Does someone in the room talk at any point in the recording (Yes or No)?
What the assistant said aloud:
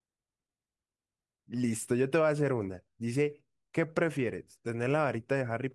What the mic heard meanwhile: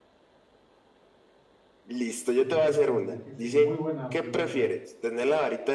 Yes